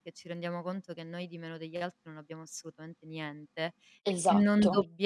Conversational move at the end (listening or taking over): listening